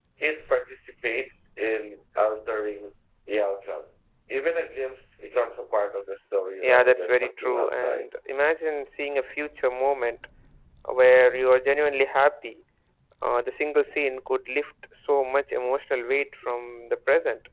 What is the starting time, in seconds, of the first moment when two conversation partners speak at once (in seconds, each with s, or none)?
6.6 s